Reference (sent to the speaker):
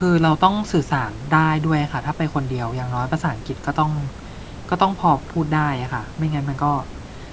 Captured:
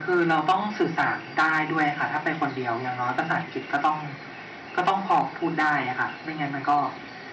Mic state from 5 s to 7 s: echo only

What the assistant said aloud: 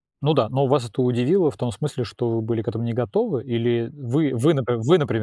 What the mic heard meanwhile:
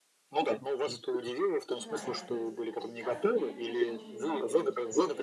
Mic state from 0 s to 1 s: echo only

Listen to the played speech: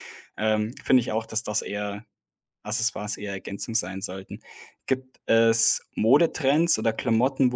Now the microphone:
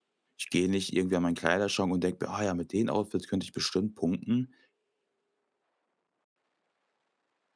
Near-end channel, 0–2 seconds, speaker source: user only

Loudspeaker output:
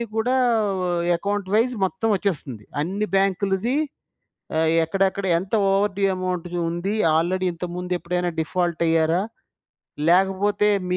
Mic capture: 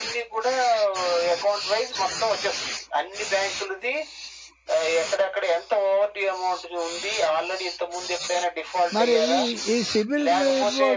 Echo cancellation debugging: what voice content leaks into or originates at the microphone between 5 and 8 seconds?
echo only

